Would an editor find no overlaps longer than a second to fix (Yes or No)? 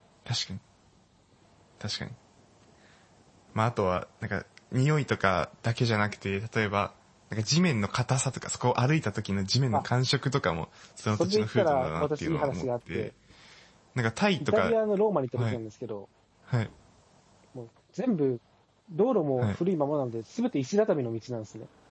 No